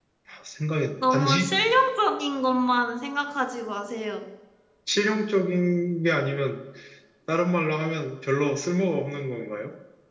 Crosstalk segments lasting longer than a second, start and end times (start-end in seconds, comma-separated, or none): none